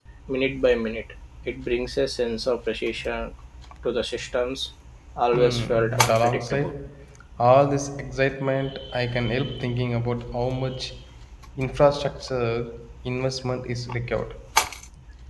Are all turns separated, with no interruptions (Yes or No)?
No